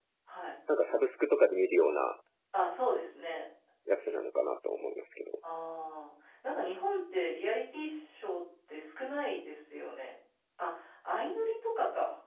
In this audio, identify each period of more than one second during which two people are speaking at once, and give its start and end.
none

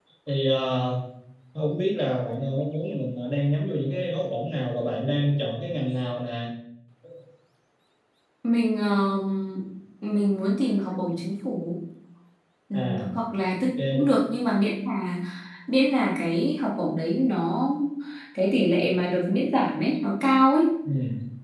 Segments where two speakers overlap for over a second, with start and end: none

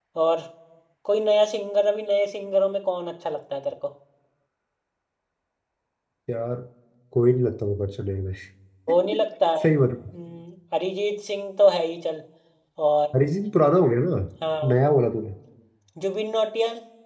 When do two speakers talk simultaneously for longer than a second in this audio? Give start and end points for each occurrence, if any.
none

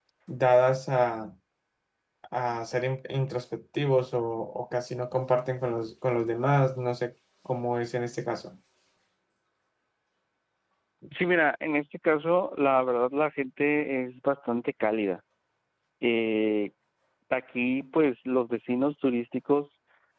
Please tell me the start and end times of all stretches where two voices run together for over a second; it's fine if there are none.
none

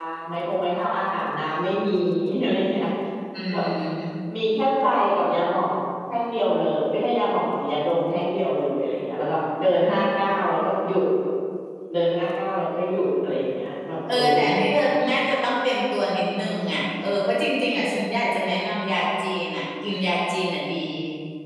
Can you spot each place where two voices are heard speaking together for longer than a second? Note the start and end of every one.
none

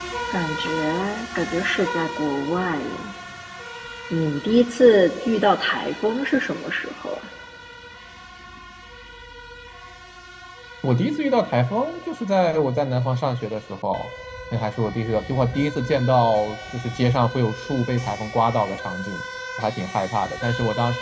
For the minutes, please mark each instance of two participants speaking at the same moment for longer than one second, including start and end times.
none

